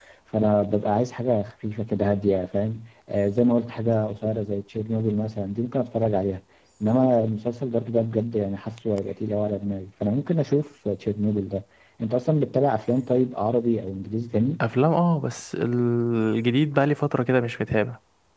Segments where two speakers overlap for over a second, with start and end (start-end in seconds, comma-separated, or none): none